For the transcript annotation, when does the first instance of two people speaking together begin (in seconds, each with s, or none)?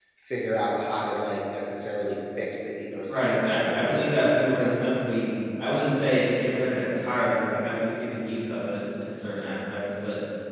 3.1 s